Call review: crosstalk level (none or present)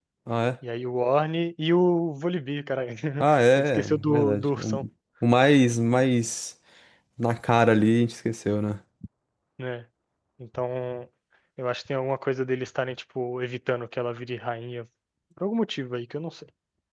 present